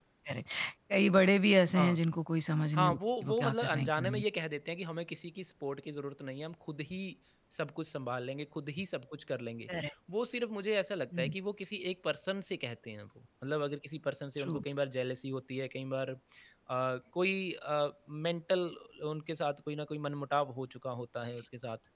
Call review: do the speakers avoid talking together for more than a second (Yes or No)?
No